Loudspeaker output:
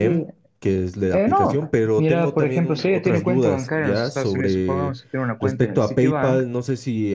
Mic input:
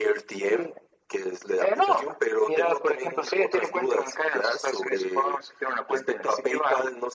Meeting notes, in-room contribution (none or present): none